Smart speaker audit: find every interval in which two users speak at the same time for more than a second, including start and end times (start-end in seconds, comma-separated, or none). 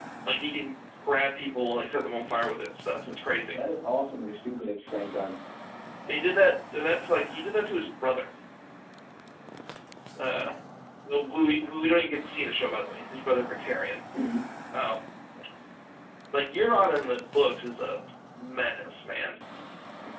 none